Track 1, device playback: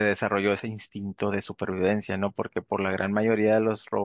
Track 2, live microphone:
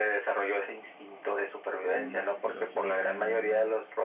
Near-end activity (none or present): present